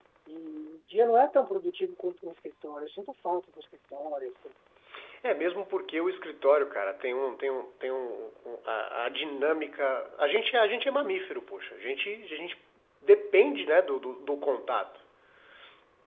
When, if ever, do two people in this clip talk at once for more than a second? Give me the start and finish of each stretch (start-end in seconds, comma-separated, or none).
none